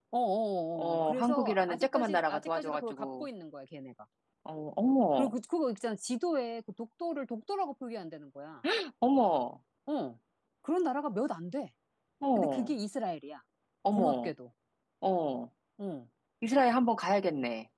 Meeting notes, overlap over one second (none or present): present